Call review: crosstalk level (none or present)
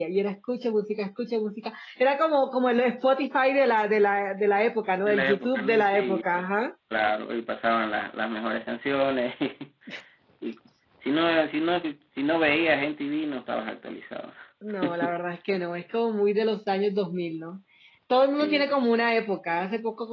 present